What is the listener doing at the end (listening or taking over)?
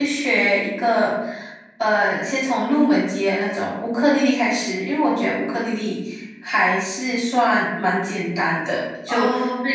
listening